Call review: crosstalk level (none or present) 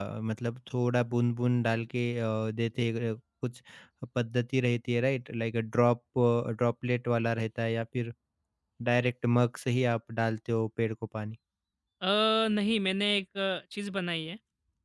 none